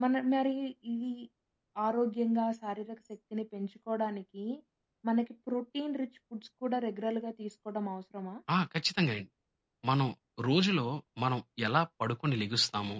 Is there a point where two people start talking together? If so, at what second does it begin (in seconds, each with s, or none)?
none